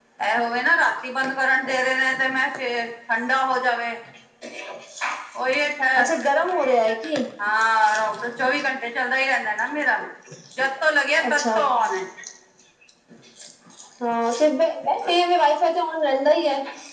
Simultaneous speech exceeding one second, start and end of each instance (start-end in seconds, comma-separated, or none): none